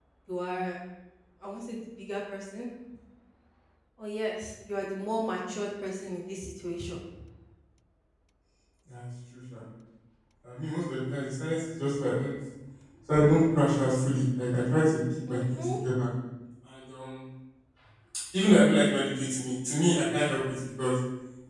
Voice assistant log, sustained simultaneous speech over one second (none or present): none